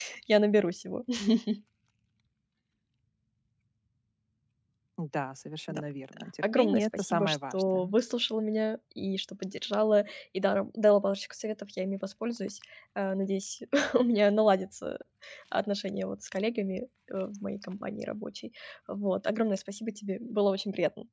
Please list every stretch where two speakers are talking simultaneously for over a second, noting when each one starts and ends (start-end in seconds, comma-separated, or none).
6.4-7.9